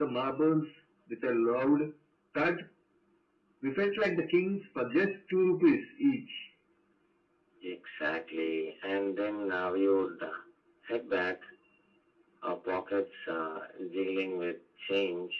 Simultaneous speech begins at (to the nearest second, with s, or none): none